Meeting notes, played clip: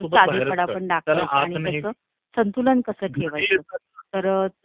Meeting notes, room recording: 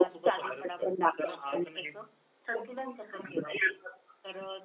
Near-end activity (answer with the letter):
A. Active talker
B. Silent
B